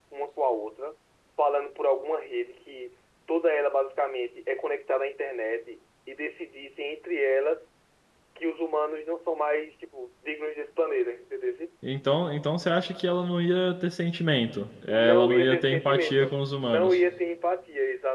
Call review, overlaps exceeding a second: present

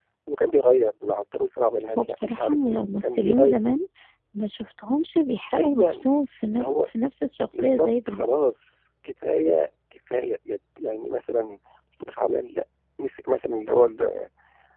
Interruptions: present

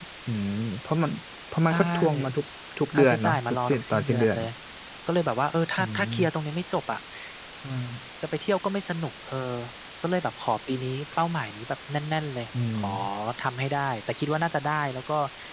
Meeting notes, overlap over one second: present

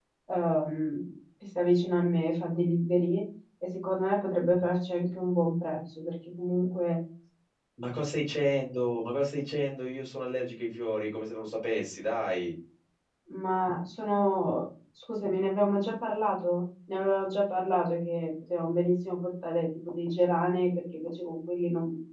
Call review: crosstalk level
none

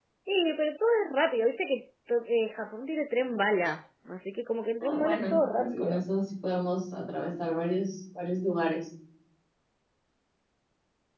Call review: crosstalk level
present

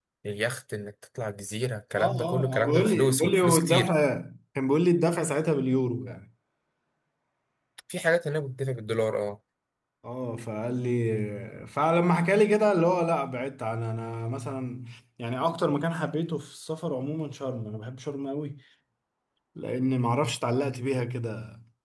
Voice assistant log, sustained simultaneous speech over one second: present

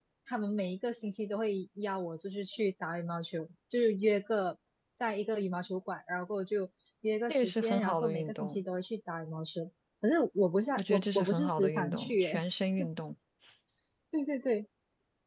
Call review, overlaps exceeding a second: present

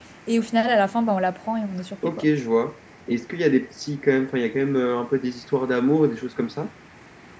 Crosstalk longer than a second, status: none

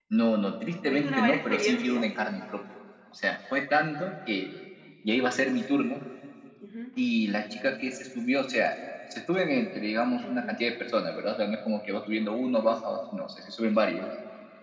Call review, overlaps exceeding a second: present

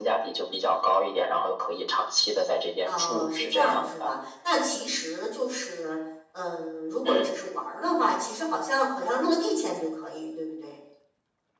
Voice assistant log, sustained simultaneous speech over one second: present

